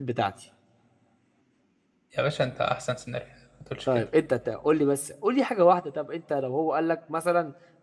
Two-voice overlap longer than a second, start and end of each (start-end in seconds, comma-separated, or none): none